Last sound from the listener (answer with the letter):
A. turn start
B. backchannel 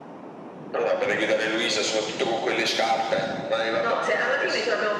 A